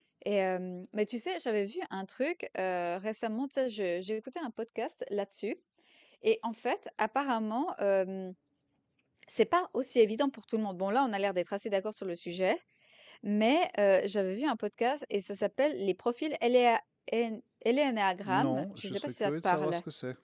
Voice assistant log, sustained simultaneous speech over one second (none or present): present